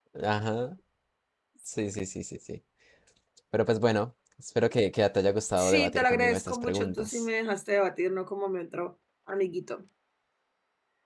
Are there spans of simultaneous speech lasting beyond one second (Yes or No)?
Yes